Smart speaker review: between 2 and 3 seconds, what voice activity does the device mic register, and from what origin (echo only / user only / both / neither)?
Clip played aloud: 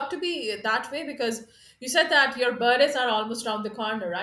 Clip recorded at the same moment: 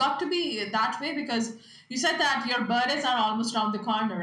echo only